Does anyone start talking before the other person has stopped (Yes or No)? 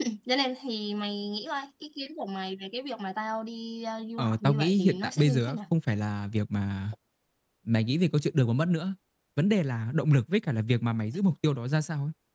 Yes